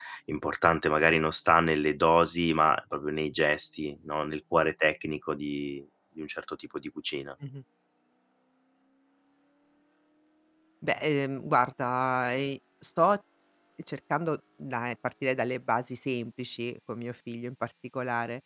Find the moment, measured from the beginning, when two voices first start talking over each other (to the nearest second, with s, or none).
none